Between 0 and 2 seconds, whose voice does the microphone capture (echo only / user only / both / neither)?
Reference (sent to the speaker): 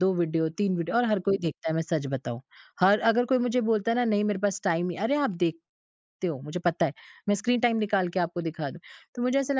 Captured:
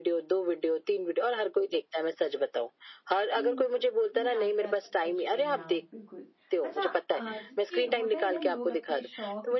echo only